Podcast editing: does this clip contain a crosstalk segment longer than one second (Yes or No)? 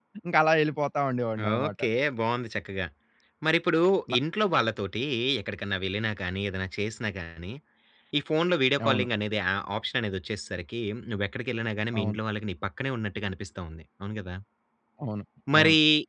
No